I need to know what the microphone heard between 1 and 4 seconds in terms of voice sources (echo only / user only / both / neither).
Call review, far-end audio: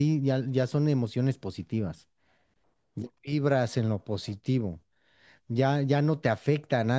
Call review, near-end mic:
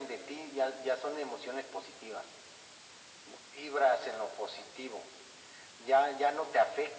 echo only